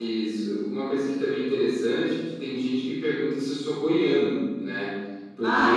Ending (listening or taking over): listening